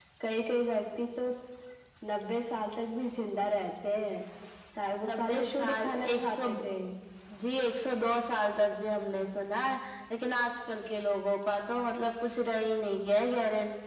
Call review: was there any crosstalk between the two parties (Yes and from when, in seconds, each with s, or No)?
Yes, from 5.0 s